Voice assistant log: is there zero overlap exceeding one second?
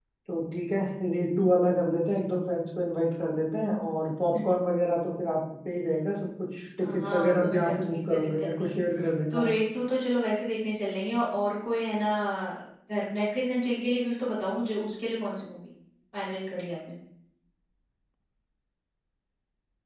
No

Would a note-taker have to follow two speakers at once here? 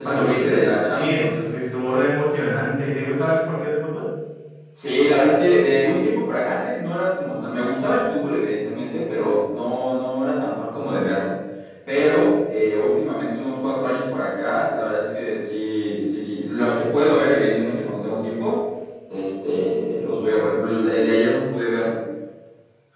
Yes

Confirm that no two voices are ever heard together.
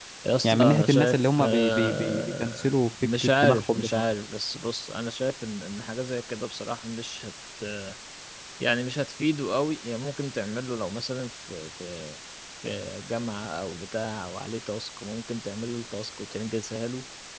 No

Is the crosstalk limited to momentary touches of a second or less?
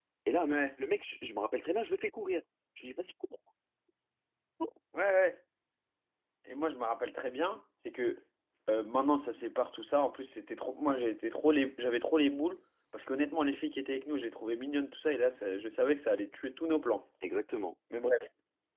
Yes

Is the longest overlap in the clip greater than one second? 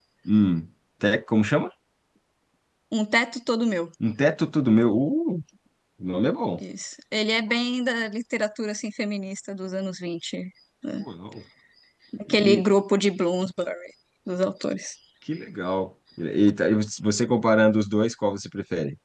No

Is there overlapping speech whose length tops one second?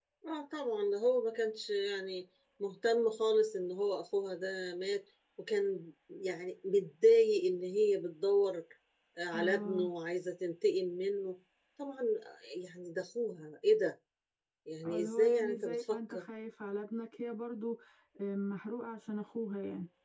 Yes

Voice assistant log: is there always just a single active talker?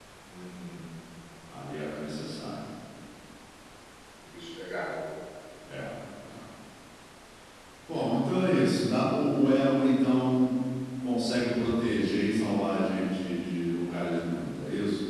Yes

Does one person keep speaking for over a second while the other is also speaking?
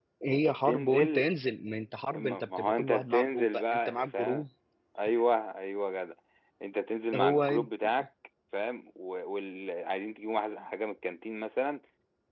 Yes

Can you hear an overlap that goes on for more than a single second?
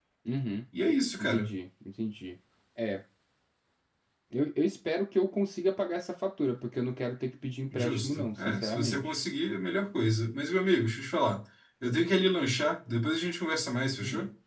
Yes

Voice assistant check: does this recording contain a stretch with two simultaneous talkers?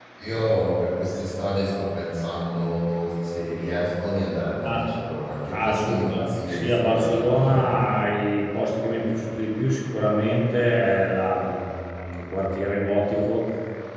Yes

